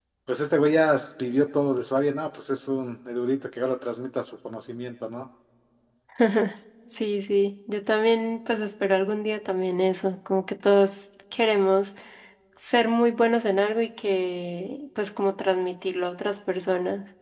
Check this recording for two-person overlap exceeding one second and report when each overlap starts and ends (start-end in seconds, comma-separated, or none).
none